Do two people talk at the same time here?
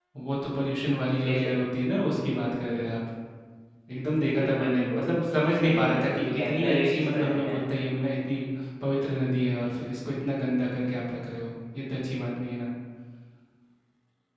Yes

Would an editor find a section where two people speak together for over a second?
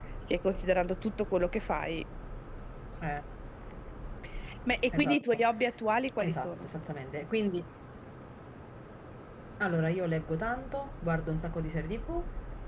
No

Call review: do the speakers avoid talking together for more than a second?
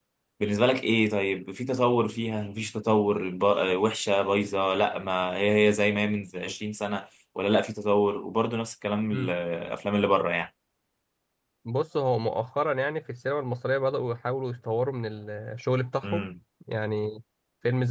Yes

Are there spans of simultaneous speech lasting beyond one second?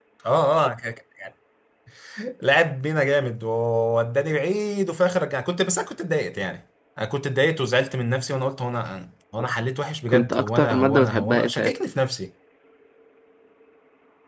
Yes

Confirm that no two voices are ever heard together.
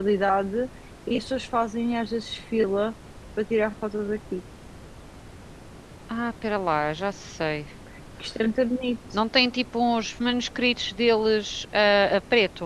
Yes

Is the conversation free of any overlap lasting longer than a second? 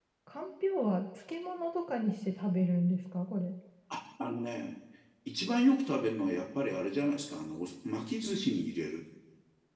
Yes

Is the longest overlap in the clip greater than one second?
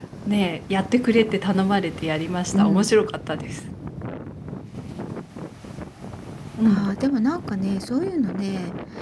No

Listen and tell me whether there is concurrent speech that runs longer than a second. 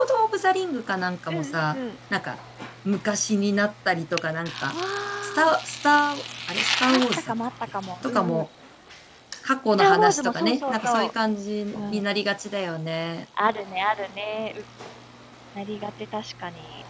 Yes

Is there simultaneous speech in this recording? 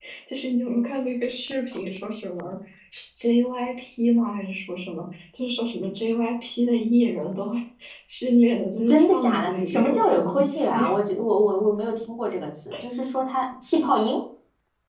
Yes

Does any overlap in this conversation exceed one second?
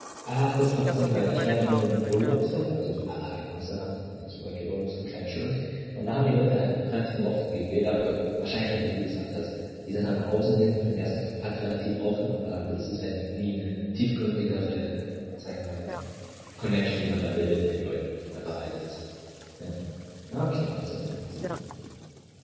Yes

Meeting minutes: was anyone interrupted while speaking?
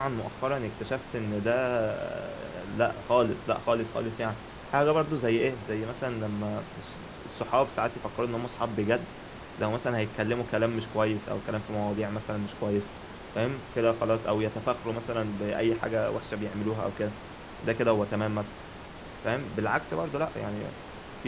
No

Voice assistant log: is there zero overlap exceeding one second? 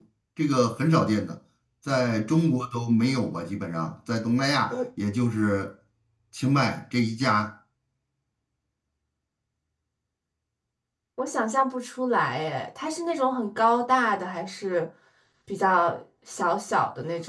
Yes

